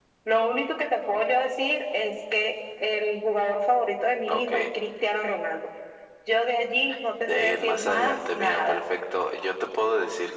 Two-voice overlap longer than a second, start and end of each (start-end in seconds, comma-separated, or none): 7.2-8.8